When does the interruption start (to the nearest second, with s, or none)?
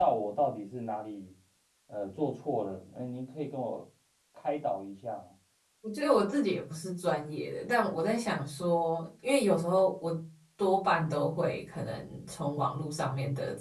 none